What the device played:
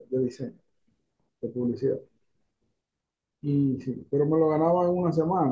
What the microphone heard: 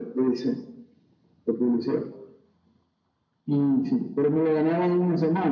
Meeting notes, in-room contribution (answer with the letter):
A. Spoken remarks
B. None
B